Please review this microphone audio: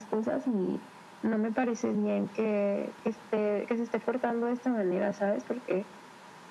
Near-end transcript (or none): none